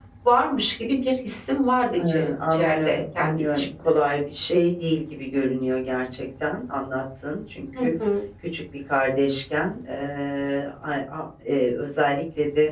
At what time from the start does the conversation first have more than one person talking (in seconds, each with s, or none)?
2.0 s